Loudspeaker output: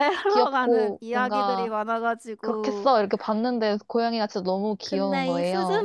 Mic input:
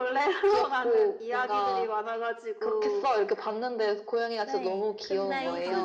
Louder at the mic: echo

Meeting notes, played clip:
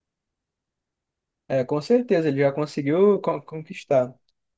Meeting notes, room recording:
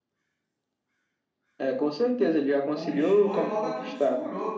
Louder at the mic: echo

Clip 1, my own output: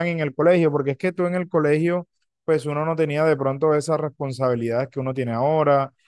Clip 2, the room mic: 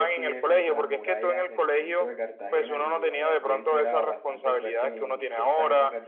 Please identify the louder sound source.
echo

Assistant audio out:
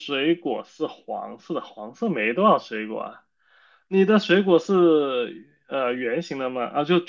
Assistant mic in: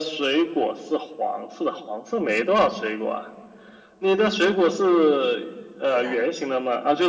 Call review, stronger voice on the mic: echo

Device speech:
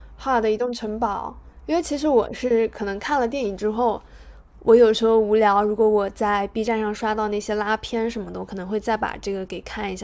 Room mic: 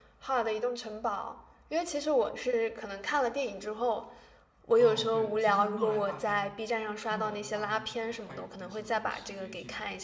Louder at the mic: echo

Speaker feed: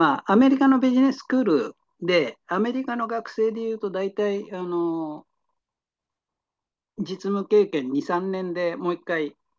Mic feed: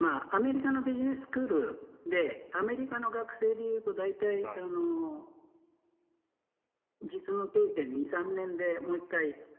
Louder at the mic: echo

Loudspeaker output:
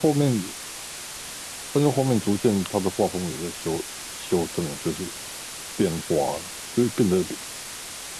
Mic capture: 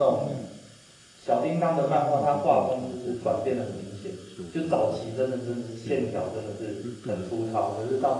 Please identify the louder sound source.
user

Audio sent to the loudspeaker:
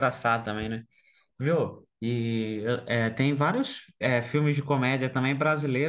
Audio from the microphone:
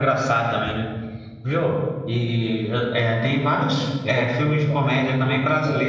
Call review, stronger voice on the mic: echo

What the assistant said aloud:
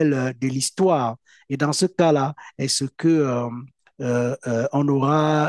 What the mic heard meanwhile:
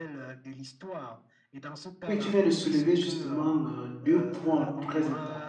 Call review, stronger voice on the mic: user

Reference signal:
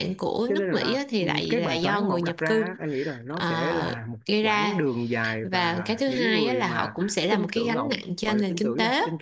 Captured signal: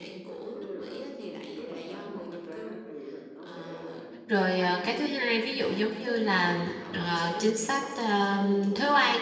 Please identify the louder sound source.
user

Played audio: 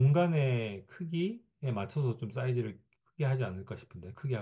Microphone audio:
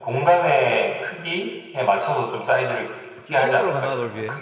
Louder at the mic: echo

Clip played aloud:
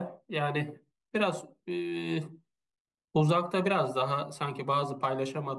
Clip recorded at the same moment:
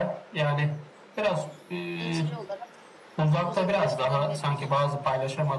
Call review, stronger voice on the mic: echo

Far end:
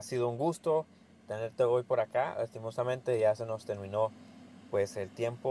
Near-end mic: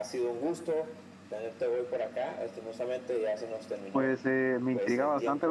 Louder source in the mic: user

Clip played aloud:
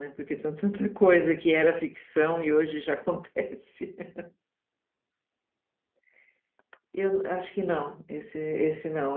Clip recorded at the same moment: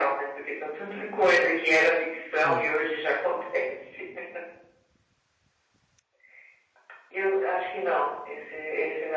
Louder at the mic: echo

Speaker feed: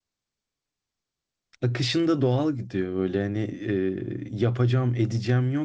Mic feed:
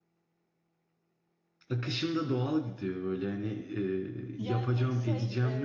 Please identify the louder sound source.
echo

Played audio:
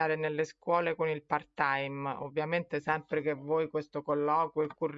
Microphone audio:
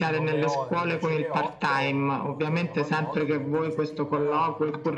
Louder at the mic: echo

